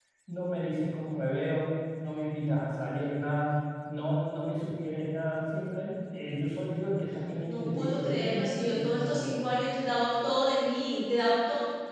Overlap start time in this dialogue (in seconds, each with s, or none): 7.4 s